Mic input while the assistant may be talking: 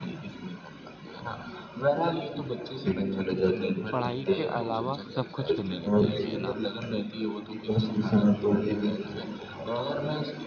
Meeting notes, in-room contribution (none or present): present